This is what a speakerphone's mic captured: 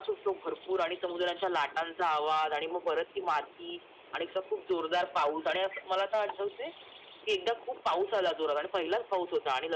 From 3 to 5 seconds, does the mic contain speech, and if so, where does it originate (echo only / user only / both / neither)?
echo only